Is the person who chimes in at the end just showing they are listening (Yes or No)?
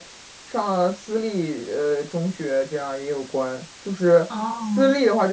Yes